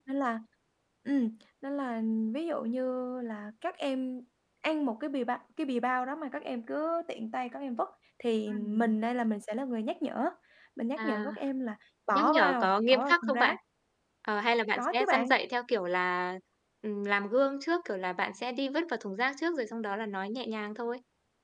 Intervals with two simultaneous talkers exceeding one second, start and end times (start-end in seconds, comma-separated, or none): 12.1-13.5